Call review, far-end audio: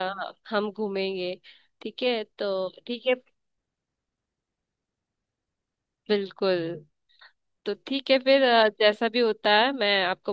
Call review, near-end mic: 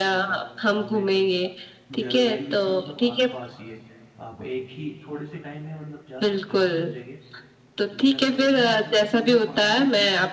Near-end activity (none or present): present